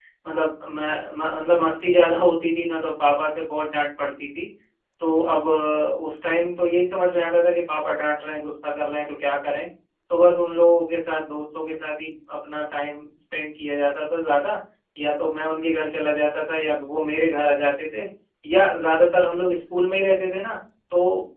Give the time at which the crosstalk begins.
none

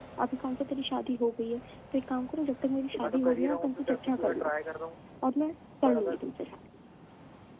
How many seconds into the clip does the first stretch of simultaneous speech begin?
2.9 s

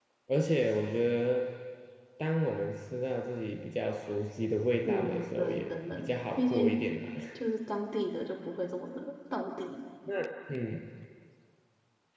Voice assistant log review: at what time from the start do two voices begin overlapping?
4.8 s

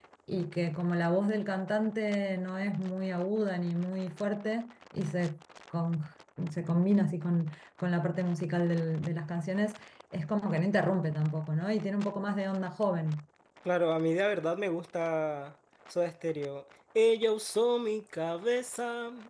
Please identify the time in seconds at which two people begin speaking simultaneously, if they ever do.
none

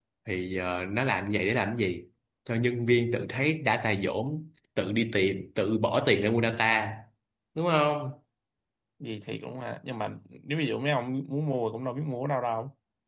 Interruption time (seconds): none

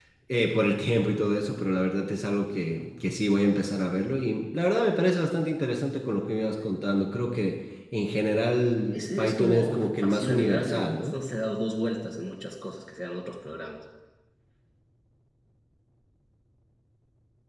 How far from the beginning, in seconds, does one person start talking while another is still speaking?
8.9 s

